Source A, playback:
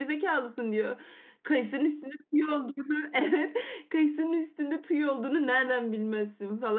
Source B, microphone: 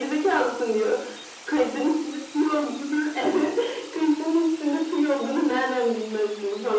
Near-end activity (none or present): none